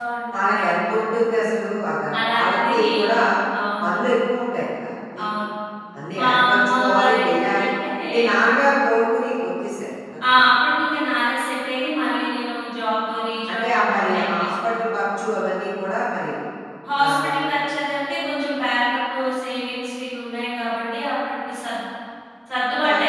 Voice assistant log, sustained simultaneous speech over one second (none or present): present